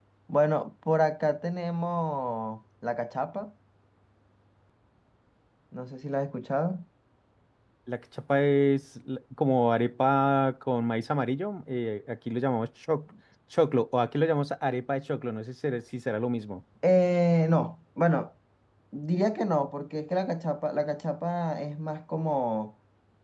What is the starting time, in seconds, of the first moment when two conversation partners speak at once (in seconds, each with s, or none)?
none